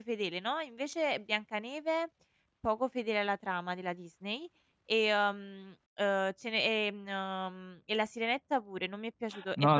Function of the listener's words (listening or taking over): taking over